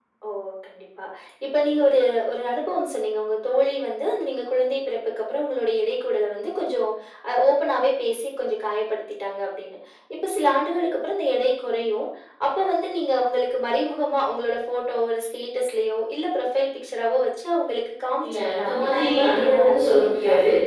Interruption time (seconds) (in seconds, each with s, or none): 18.2 s